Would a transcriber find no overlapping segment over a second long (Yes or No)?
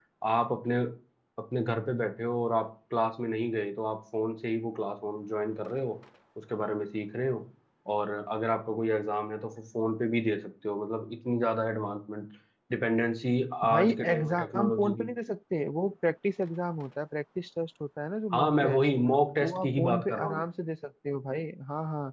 No